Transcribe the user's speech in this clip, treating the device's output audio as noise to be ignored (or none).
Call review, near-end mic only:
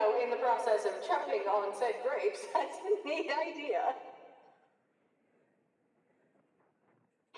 none